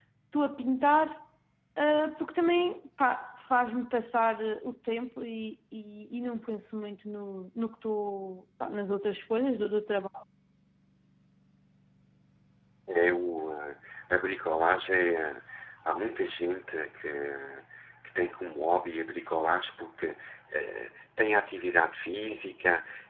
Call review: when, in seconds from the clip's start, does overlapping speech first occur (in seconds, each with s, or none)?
none